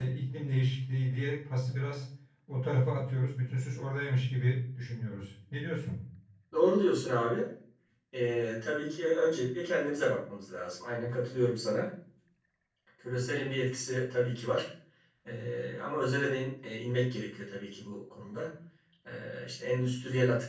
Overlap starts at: none

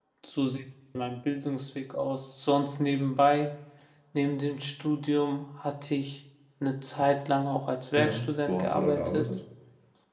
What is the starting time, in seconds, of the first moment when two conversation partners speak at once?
8.0 s

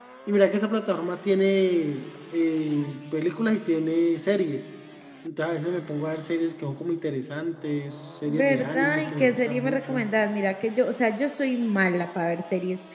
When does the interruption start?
8.3 s

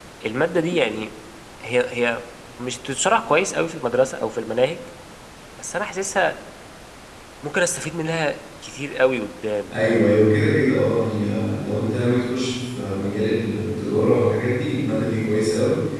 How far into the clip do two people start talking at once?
none

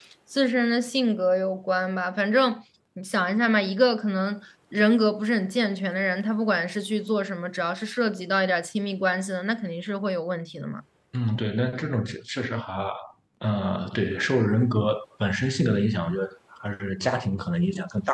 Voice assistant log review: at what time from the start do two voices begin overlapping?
none

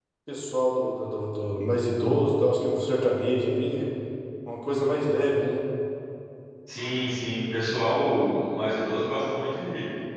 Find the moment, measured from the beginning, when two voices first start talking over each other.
none

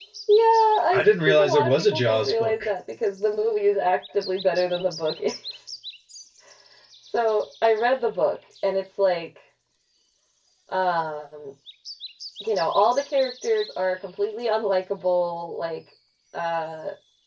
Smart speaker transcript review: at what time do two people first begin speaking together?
0.9 s

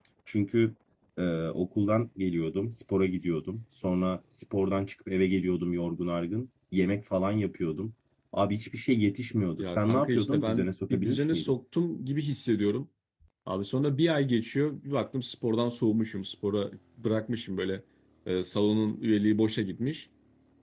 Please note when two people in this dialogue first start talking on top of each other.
9.6 s

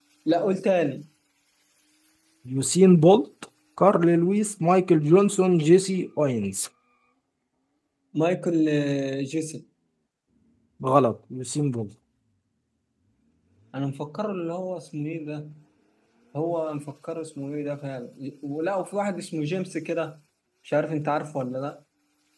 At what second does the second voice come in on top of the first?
none

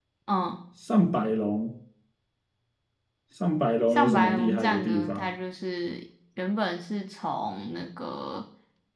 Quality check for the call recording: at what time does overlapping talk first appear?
3.9 s

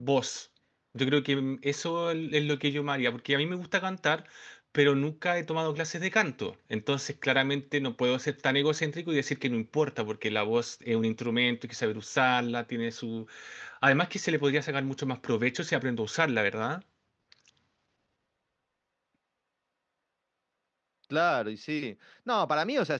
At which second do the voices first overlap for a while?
none

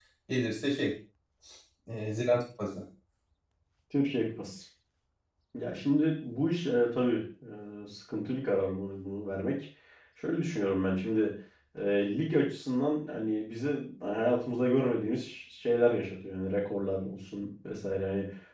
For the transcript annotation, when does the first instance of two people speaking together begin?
none

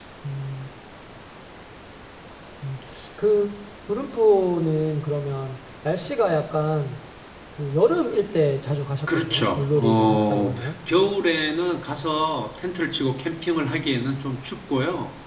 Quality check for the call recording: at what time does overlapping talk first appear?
9.1 s

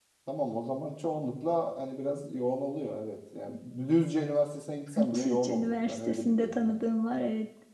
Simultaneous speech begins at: 5.0 s

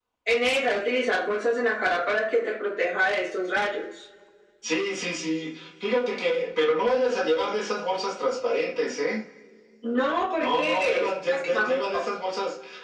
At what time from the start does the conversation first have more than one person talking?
10.4 s

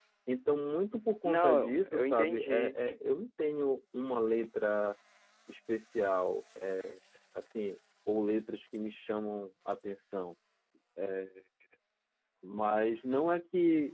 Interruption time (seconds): 1.2 s

